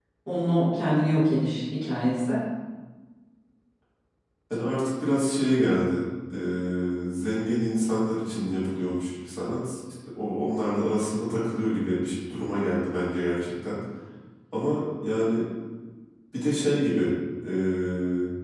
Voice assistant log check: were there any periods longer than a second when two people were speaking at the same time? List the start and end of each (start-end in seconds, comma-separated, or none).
none